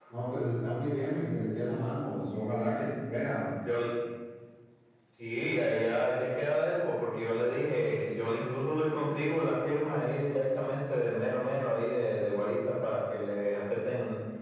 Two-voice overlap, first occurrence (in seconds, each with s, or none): none